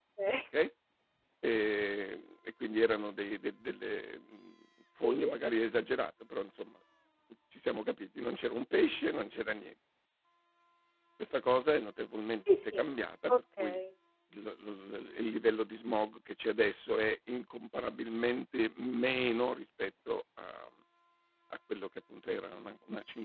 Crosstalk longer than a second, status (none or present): none